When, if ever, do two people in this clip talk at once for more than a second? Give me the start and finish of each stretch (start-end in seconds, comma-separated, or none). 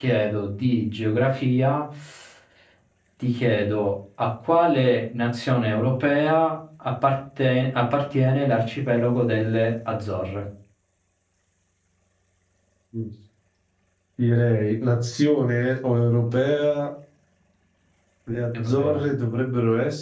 none